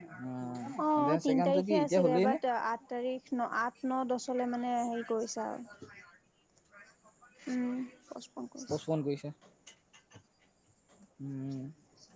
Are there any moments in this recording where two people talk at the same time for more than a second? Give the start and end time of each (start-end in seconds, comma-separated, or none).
1.0-2.4